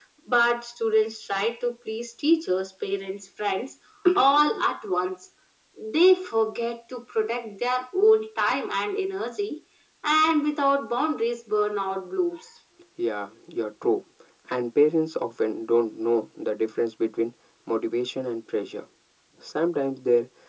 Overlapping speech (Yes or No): No